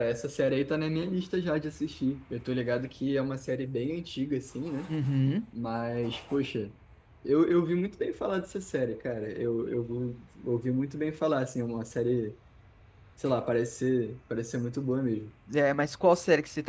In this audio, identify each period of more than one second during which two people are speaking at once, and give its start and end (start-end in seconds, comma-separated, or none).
none